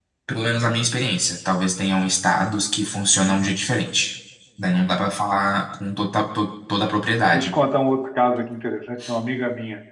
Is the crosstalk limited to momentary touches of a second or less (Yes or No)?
Yes